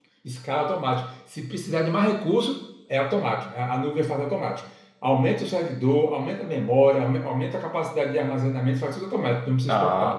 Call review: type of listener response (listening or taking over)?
taking over